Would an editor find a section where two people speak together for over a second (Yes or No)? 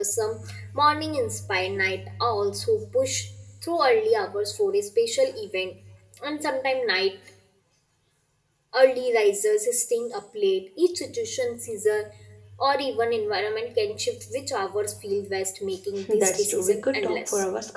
Yes